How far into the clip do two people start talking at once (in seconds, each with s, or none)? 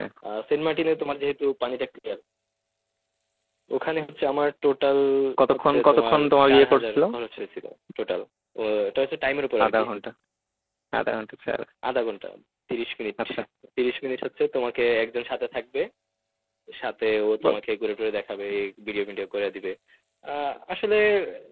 5.5 s